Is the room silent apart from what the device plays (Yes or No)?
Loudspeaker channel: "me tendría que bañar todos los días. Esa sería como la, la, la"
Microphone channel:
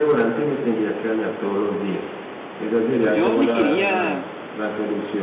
No